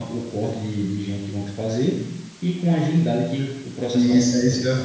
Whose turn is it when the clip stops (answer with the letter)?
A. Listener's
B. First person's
A